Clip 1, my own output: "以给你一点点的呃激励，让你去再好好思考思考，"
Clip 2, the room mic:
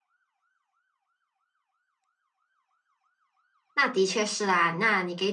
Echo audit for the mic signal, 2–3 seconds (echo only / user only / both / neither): neither